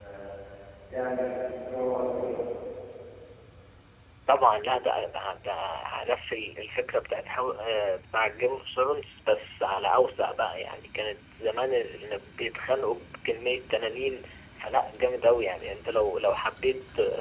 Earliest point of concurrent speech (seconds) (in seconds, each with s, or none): none